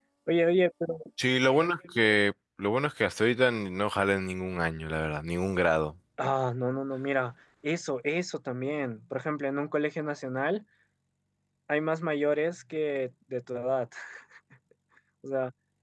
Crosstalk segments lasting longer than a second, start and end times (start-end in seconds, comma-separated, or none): none